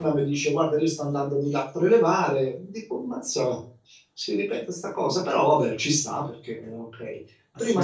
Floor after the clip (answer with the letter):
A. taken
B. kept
B